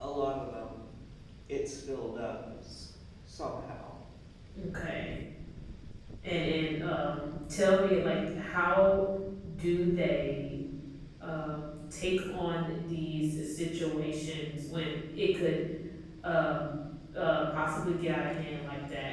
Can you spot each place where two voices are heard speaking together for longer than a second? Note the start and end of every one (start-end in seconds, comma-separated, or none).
none